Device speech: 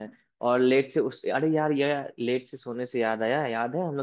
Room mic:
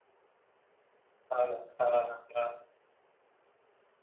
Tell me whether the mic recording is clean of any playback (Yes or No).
Yes